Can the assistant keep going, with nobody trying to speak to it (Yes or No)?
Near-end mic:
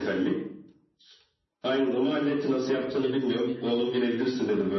No